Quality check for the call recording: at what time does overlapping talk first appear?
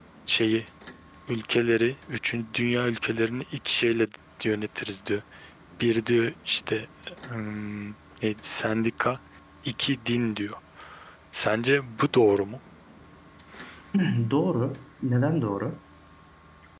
none

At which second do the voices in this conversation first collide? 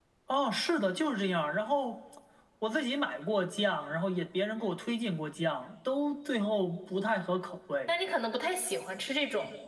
none

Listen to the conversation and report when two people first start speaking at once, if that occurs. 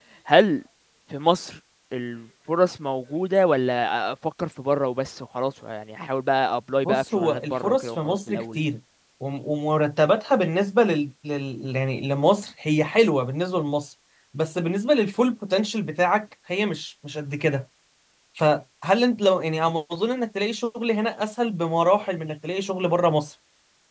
6.8 s

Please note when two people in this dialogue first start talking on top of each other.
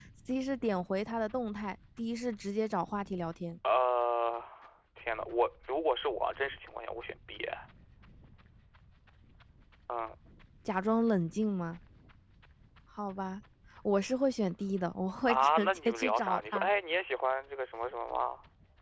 15.3 s

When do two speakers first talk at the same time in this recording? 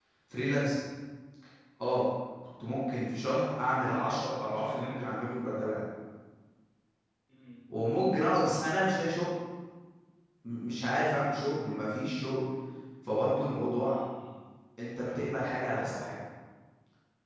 3.5 s

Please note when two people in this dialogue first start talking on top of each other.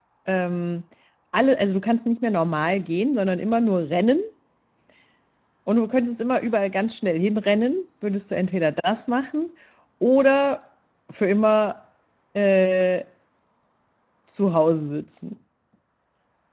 none

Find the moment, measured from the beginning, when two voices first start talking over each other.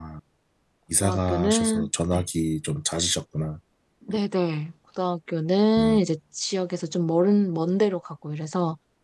1.0 s

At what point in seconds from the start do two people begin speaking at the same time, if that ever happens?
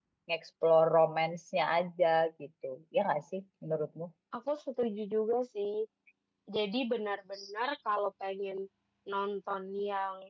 none

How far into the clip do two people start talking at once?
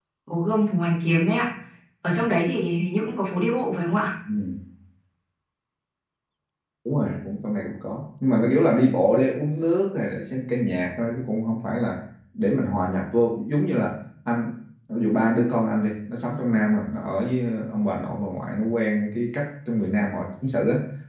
none

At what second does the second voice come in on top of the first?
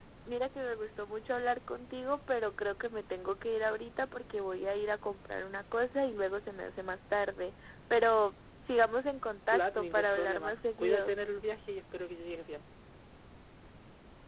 9.5 s

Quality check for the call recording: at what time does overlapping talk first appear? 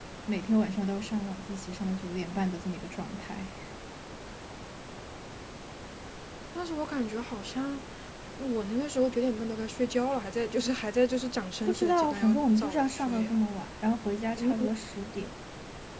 11.7 s

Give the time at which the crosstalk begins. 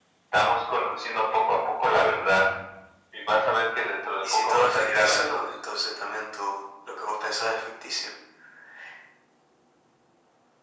4.2 s

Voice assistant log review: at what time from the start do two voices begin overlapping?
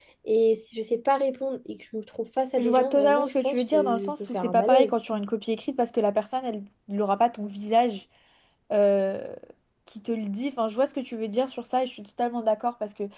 2.6 s

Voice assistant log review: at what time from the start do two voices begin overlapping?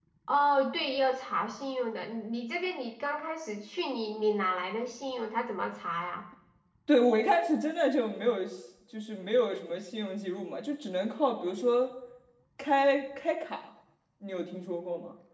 none

